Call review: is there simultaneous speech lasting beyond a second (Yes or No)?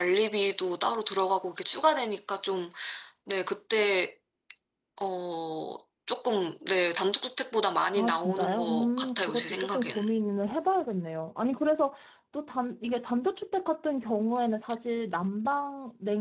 Yes